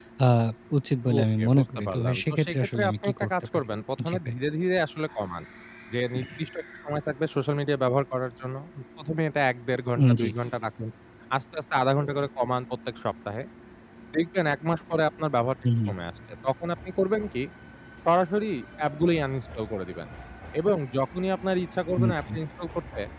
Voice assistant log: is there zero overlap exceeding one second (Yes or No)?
No